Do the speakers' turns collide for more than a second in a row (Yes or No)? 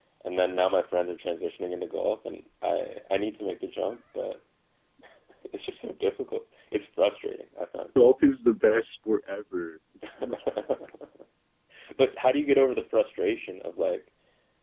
No